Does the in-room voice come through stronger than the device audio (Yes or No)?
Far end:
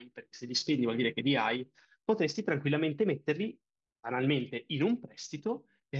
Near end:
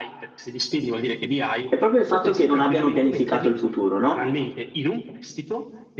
Yes